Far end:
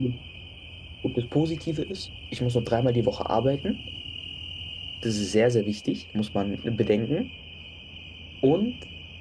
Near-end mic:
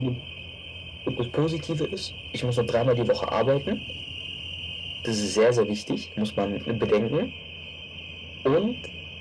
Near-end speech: none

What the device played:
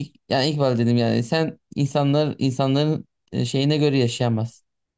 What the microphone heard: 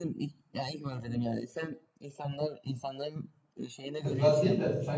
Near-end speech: present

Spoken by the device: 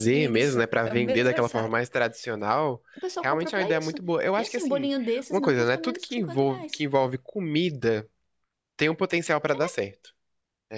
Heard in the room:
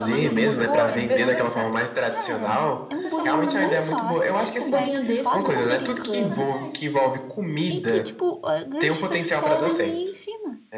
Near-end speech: present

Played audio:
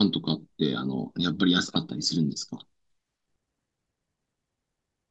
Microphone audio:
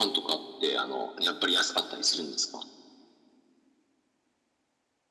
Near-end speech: none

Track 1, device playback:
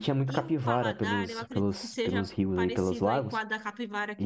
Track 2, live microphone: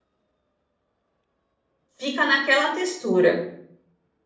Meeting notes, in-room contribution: present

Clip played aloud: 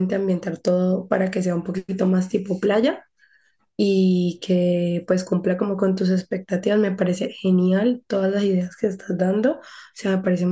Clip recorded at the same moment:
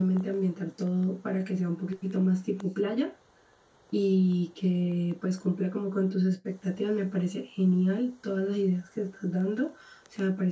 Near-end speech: none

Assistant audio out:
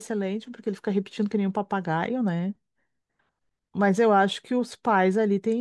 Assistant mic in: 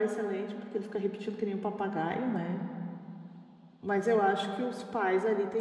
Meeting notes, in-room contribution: none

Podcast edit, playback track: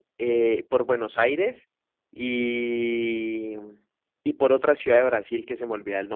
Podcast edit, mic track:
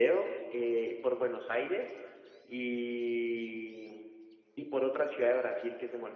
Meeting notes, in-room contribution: none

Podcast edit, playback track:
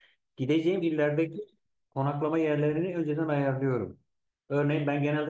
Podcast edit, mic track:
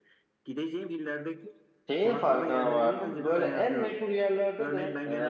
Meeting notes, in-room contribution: present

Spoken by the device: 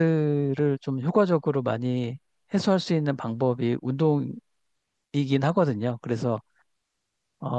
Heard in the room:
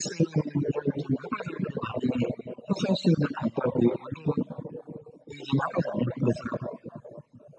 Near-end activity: none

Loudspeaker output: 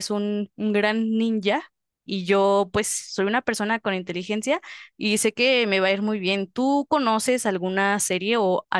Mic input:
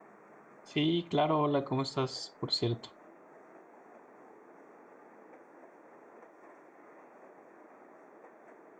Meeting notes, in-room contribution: present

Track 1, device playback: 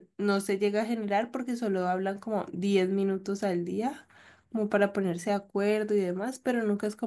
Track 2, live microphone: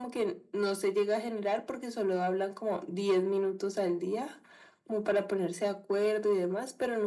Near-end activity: none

